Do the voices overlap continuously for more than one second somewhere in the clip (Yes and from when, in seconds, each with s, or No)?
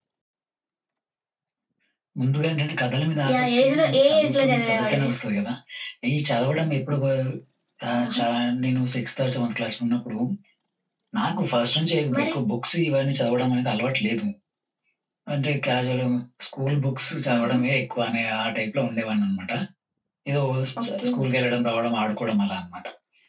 Yes, from 3.3 s